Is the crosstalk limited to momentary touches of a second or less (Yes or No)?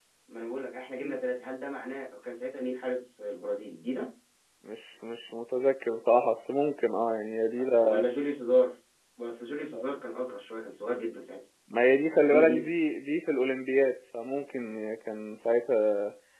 Yes